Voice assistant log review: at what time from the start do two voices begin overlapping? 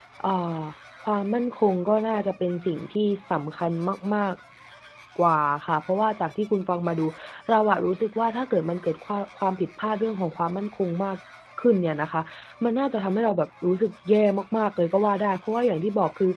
none

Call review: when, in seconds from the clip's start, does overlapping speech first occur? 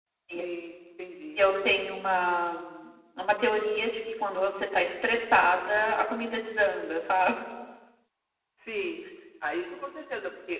none

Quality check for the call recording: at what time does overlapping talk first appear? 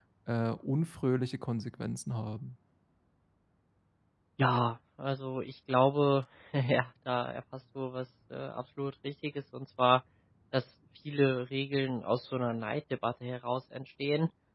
none

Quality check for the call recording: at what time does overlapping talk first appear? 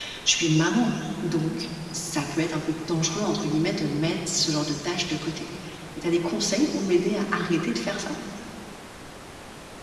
none

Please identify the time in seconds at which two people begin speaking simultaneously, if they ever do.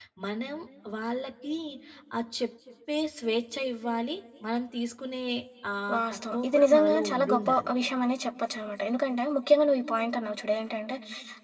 6 s

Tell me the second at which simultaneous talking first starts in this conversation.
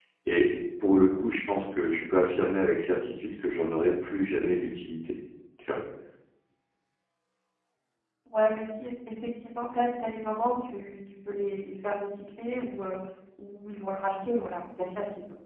none

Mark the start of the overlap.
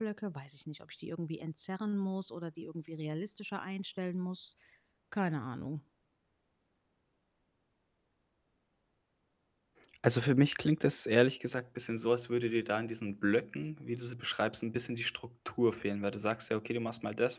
none

